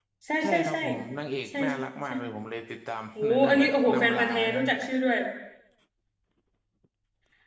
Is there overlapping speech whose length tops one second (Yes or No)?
Yes